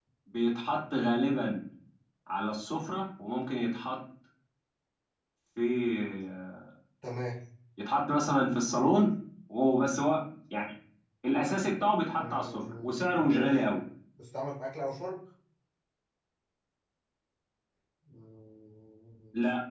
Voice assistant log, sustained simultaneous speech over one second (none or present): present